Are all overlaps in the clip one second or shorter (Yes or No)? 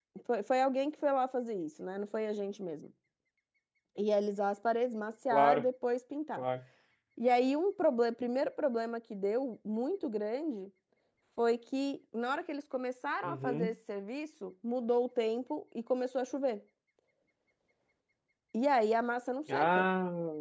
Yes